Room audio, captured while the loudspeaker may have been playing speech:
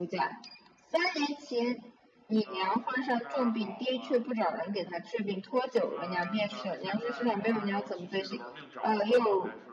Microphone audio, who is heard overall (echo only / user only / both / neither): both